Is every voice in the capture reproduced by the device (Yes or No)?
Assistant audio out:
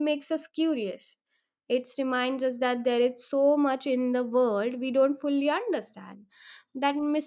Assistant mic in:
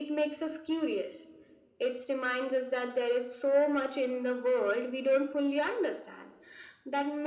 Yes